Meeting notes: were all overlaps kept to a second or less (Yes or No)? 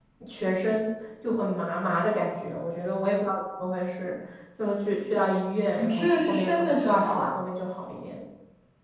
No